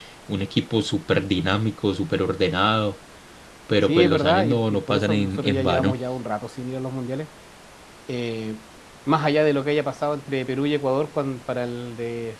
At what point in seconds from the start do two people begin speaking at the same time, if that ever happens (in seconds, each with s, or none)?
3.8 s